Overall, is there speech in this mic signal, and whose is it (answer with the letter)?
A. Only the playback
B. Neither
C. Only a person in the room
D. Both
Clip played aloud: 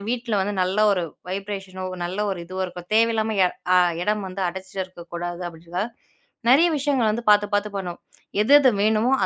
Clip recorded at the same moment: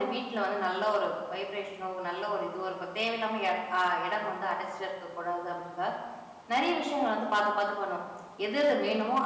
A